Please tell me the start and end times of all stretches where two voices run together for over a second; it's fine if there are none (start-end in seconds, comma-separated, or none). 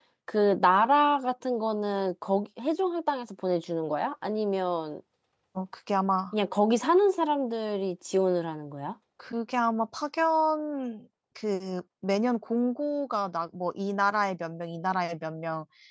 none